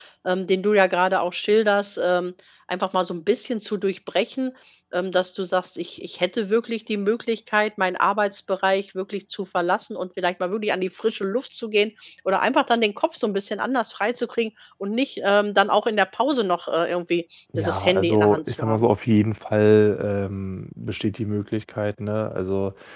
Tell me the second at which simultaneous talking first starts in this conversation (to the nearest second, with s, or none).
18 s